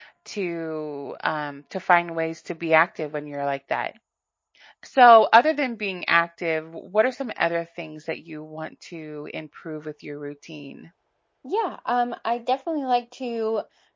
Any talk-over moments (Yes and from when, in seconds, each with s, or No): No